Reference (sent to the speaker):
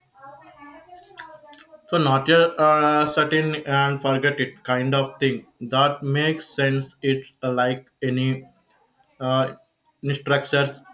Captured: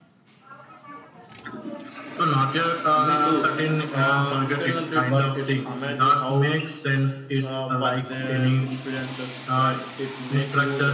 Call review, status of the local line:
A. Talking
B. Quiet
A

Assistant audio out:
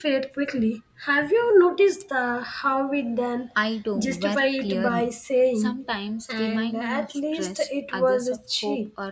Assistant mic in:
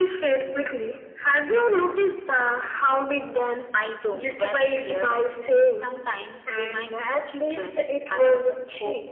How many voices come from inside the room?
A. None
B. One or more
A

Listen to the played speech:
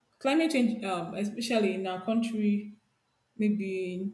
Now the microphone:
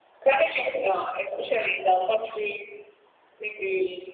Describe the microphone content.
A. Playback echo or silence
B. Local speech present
A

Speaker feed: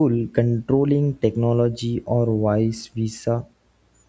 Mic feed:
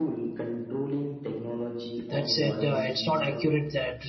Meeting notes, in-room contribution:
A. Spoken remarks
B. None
A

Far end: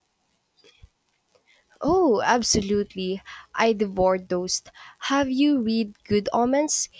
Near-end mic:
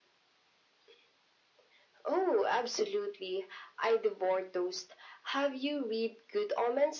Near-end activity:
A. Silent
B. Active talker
A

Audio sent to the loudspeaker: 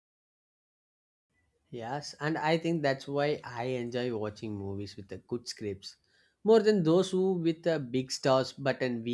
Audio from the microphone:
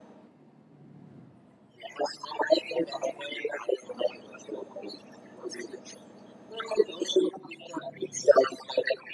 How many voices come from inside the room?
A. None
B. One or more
A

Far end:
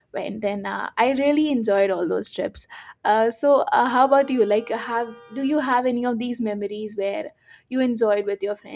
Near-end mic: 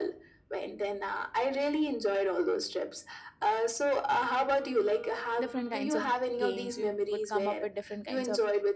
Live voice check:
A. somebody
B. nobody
A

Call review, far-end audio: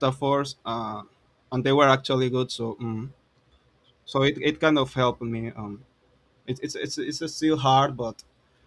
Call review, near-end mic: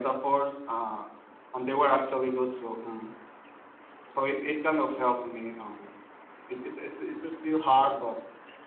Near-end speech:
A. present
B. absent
B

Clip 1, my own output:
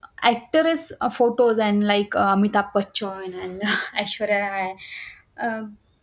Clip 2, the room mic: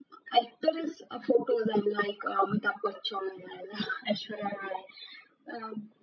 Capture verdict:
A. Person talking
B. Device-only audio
B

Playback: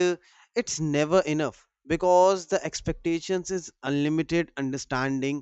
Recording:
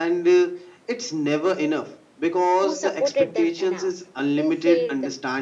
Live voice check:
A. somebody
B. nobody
A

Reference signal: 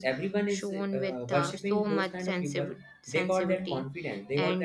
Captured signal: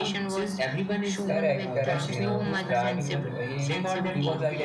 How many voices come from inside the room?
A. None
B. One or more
B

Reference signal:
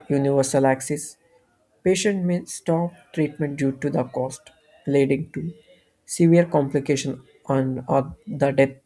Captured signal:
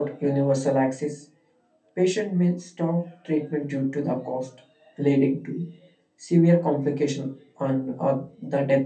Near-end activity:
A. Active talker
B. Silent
B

